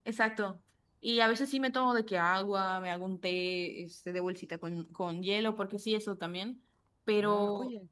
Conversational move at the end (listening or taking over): taking over